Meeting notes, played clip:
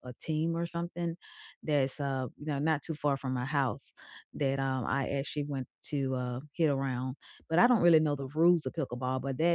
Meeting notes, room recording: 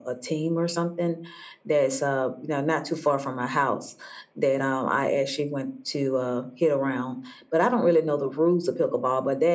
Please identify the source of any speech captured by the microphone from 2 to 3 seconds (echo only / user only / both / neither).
echo only